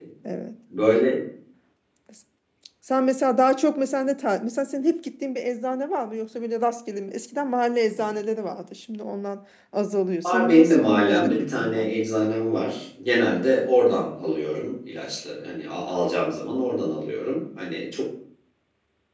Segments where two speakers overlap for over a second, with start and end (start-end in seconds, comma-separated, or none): 10.2-12.1